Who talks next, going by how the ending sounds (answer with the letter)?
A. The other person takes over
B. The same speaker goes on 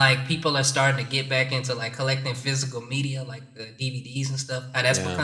B